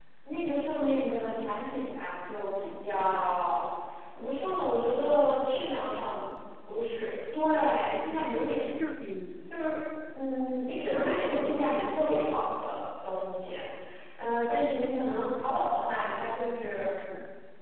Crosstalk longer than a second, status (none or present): none